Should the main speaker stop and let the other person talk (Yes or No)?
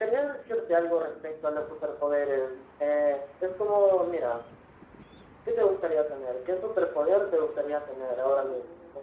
Yes